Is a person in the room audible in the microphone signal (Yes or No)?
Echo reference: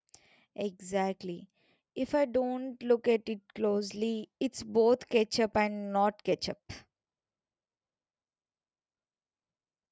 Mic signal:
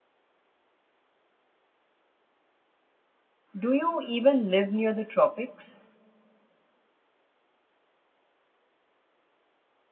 Yes